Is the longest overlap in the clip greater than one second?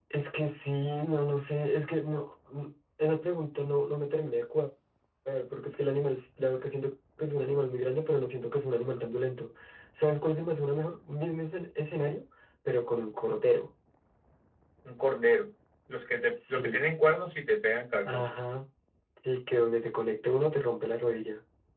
No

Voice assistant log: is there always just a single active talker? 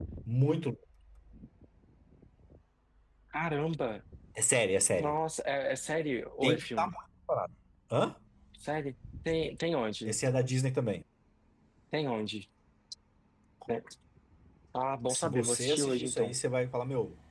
No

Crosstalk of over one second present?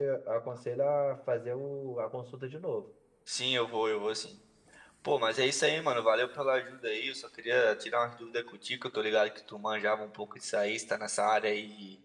No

